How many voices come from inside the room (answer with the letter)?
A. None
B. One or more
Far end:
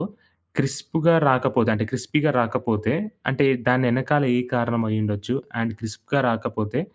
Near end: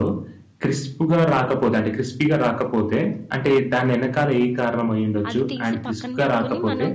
B